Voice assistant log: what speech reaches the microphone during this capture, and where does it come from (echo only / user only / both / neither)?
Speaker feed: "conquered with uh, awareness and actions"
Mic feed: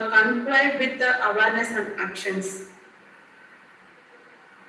echo only